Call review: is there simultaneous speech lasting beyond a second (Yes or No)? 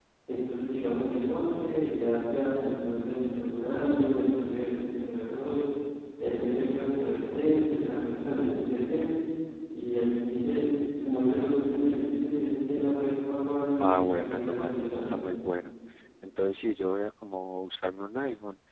Yes